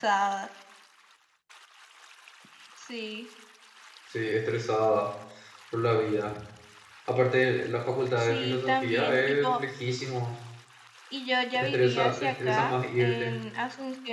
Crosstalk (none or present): present